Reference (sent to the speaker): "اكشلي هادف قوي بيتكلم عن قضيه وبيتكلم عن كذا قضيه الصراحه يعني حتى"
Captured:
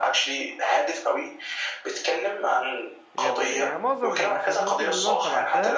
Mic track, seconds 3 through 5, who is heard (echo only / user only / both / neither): both